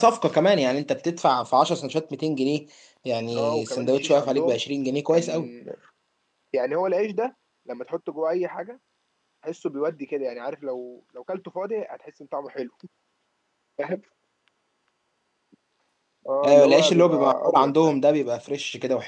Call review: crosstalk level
present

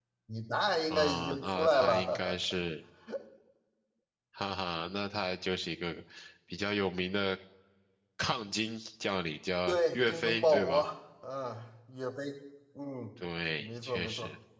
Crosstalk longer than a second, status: present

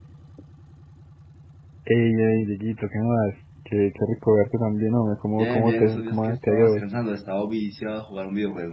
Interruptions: present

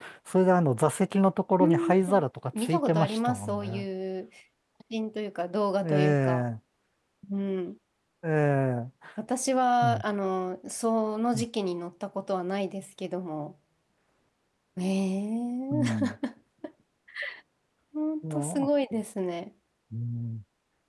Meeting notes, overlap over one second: present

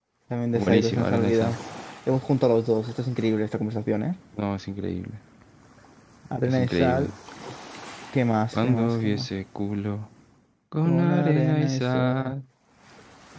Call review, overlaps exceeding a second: present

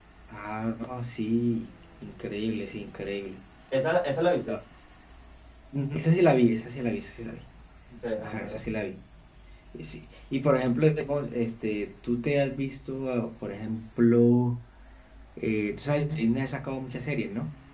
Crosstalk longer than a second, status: none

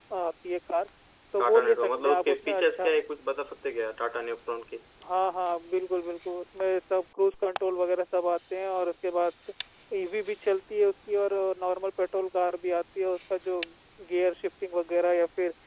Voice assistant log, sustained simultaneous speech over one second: present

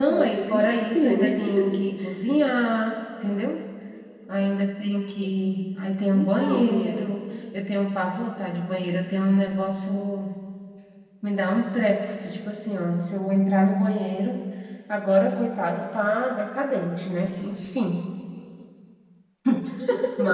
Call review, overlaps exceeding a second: present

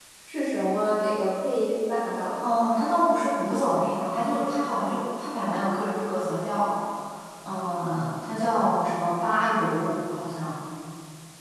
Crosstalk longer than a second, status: none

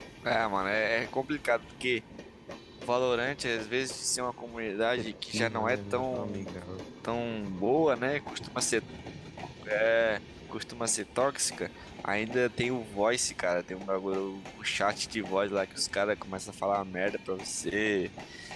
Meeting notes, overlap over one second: present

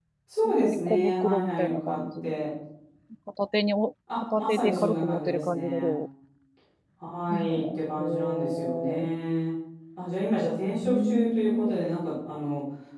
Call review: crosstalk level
present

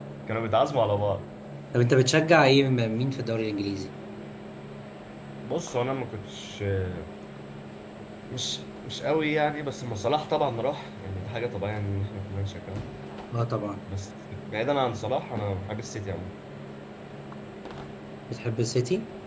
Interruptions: none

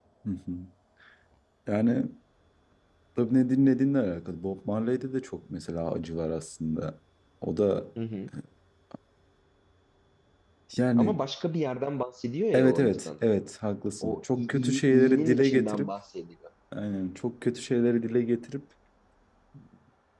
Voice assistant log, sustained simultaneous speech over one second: present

